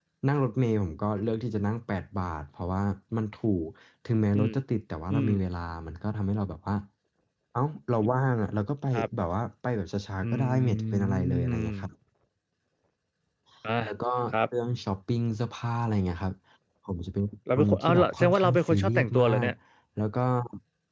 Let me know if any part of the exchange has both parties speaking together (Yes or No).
Yes